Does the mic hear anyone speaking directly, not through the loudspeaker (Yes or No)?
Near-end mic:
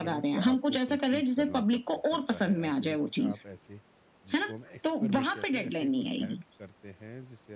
Yes